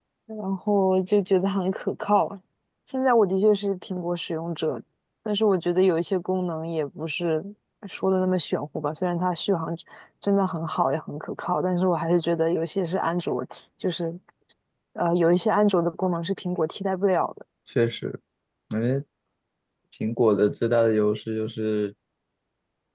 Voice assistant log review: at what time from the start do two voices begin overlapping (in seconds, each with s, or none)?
none